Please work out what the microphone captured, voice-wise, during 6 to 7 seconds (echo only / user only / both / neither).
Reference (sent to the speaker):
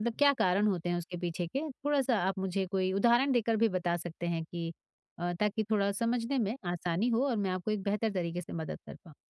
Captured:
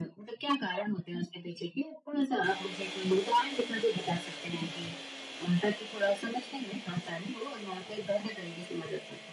echo only